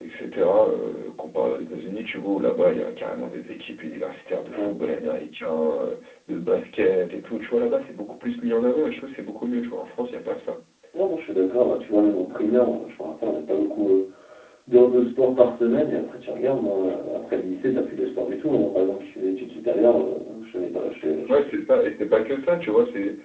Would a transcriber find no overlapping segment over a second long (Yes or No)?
Yes